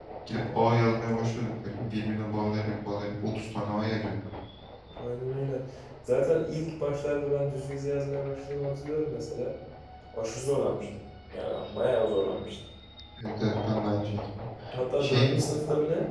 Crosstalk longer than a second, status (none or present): none